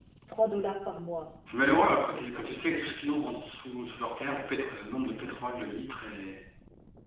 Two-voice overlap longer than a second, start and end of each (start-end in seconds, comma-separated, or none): 1.5-3.2